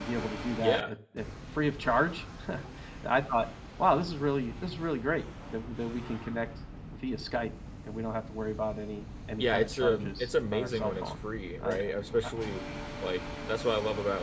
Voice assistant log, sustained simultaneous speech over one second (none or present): present